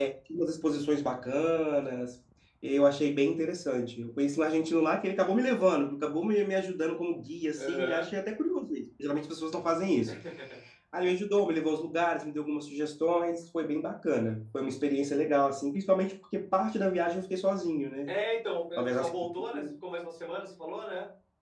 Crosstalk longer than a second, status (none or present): none